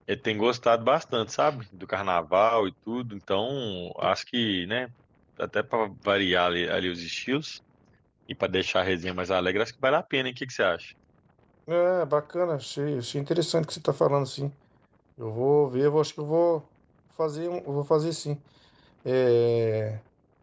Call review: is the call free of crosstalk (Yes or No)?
Yes